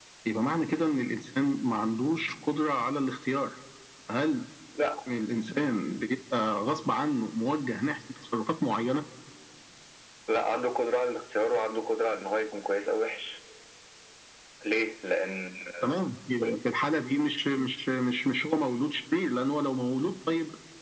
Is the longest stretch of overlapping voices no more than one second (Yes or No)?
Yes